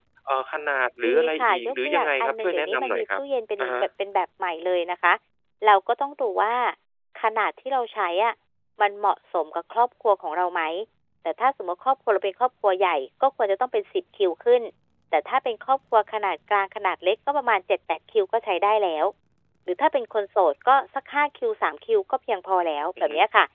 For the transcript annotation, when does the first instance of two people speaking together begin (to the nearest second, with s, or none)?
1 s